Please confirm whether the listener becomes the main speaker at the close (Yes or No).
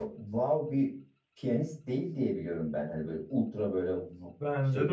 Yes